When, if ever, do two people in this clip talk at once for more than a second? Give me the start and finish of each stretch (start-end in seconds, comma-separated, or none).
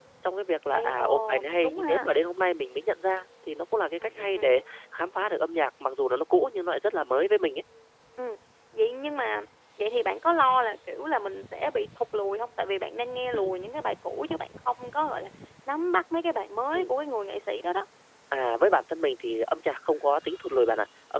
0.7-2.1